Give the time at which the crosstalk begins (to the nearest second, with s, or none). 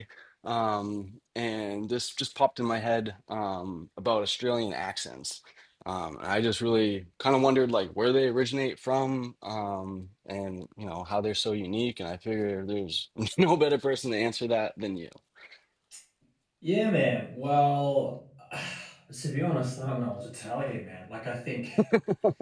none